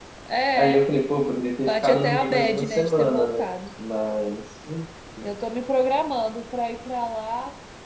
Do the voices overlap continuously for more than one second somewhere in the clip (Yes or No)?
Yes